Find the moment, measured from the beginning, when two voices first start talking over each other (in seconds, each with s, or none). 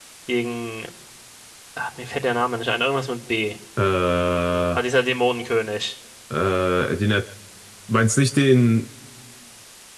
none